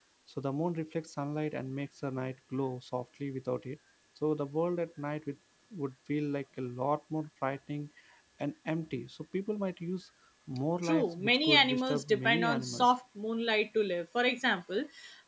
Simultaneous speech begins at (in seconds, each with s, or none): 10.8 s